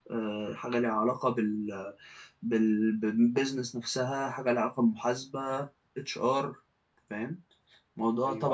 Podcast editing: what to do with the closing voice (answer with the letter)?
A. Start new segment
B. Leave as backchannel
A